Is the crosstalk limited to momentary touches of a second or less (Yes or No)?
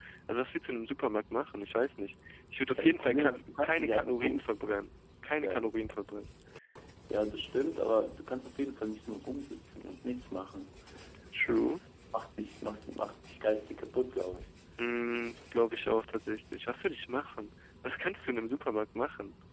No